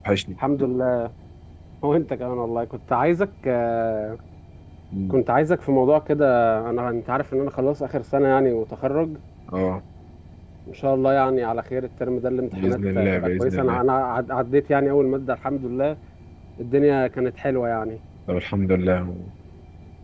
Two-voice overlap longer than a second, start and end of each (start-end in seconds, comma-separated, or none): 12.5-13.8